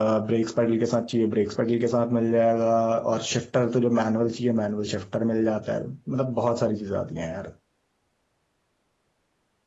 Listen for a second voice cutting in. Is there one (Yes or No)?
No